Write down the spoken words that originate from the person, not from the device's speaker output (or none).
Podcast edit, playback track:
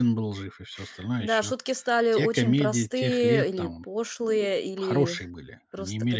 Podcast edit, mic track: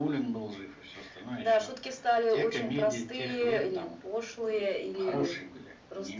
none